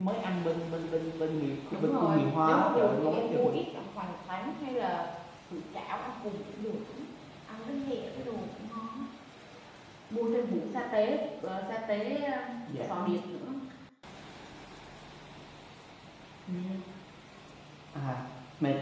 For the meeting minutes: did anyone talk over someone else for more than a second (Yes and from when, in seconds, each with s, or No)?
Yes, from 1.7 s